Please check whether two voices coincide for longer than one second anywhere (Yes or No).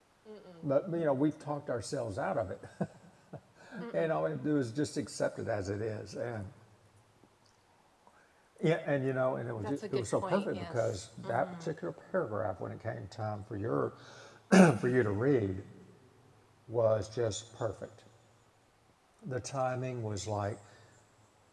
Yes